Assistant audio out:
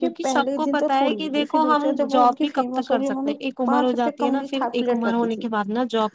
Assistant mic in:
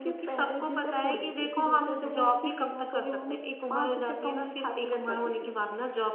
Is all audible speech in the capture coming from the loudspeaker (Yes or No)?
Yes